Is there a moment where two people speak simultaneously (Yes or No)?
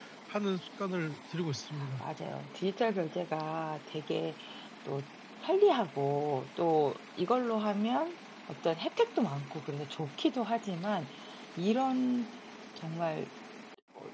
No